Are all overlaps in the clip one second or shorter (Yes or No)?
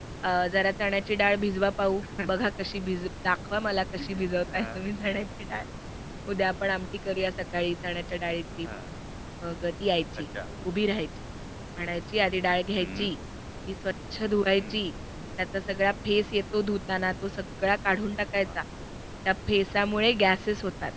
Yes